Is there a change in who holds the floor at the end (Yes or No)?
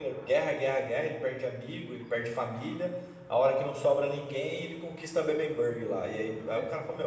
No